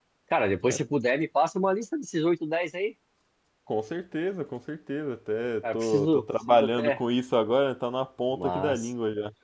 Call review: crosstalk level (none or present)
present